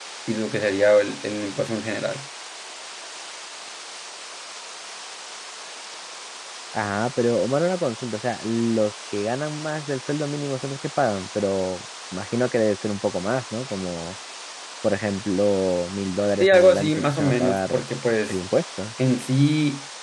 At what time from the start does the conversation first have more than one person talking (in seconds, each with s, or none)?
16.4 s